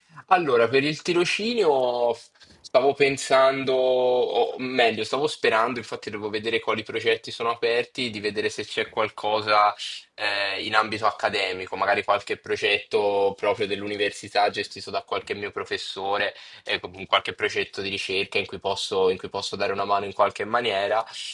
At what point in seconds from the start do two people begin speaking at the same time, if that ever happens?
none

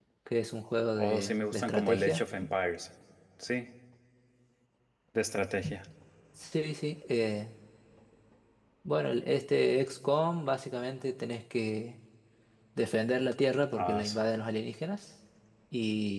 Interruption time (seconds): 1.0 s

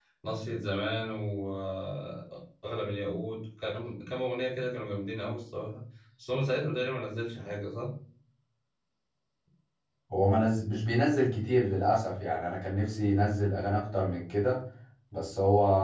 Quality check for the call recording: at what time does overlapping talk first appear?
none

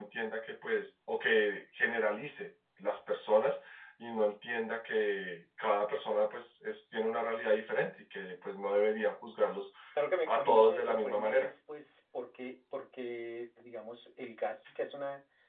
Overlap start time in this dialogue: 10.2 s

